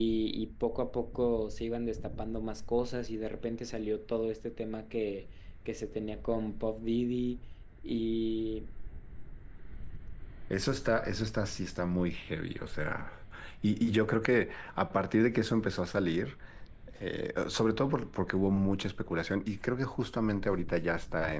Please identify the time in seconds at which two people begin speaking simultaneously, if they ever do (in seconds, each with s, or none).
none